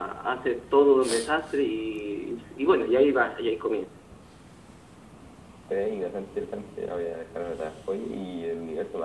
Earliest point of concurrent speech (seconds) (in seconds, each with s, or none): none